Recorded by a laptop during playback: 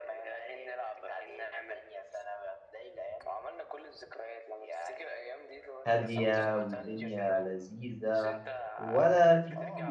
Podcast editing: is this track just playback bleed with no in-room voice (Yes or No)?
No